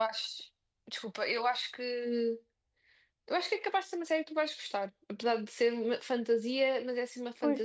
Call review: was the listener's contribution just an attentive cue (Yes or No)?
No